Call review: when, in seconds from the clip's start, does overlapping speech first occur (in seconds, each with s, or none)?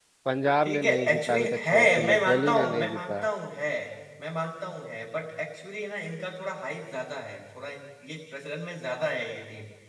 0.6 s